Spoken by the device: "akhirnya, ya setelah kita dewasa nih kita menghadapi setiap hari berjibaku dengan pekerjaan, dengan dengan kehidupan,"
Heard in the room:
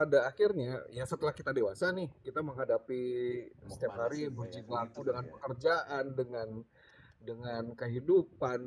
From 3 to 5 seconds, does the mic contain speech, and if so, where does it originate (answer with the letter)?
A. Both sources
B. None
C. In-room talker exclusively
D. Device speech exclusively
A